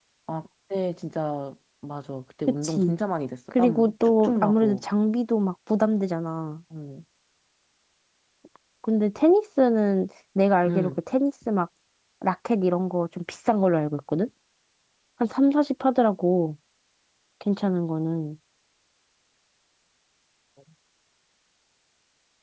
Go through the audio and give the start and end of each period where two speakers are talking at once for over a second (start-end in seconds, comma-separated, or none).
3.6-4.8